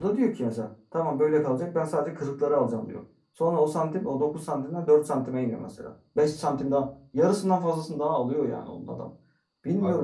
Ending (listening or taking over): listening